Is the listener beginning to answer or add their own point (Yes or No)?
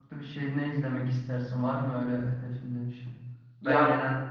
No